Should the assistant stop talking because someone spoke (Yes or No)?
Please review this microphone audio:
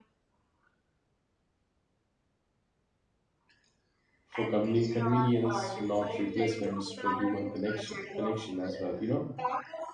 Yes